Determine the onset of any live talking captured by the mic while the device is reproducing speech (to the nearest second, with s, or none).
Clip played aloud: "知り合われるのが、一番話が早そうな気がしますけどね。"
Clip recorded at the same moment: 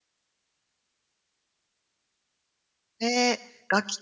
3 s